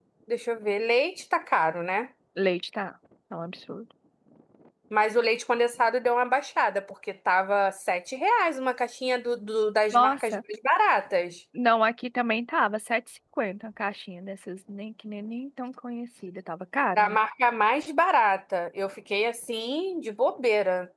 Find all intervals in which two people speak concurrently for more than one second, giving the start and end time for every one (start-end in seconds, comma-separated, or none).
none